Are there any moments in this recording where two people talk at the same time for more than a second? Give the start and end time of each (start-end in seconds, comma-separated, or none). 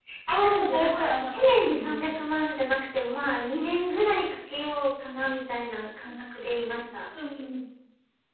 0.7-2.2